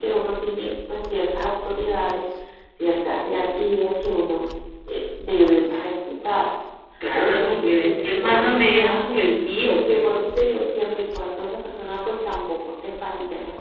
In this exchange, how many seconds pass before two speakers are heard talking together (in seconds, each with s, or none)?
7.2 s